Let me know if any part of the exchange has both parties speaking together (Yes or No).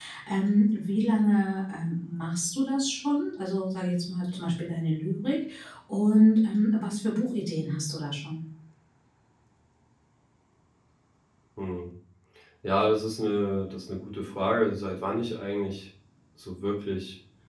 No